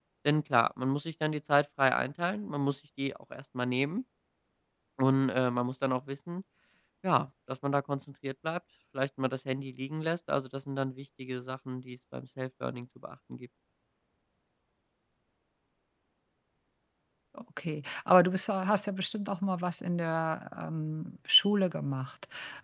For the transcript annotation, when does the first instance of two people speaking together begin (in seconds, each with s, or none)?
none